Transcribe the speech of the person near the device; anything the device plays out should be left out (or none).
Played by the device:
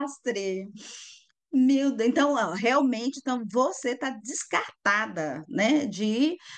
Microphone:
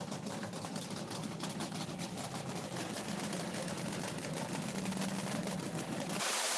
none